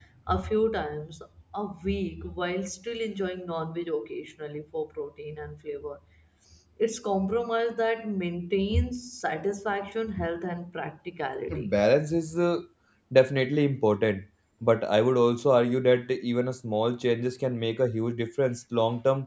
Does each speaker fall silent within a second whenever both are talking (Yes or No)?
Yes